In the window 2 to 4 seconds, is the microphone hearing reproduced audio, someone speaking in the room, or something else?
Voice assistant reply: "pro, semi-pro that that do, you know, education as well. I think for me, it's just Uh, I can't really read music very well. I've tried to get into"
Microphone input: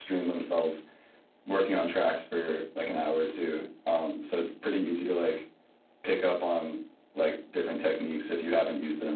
user only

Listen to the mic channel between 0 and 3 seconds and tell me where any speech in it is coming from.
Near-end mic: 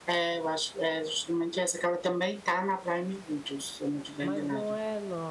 echo only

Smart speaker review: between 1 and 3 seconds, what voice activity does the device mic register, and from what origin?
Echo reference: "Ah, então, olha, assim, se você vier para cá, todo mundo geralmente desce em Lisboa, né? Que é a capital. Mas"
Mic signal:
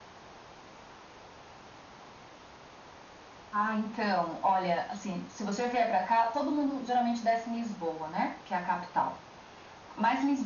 neither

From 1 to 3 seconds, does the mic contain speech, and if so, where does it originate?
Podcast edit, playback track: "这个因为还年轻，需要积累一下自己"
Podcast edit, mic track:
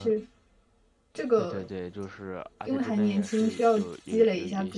both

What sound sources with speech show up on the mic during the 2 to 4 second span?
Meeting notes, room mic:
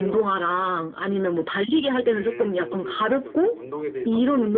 both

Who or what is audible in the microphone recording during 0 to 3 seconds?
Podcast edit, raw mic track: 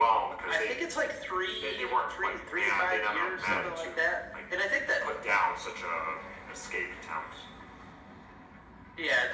echo only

